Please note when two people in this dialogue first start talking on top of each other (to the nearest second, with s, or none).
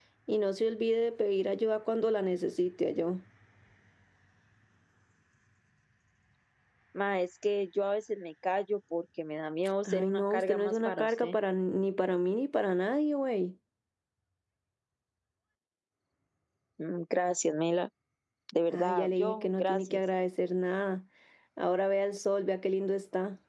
10 s